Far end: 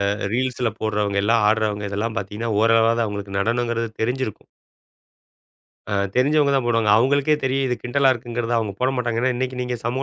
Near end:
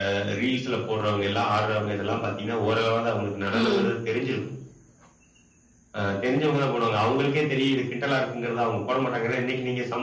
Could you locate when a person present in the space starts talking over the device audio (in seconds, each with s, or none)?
3.5 s